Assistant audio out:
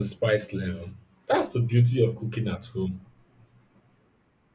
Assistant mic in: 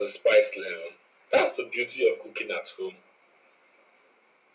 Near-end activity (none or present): none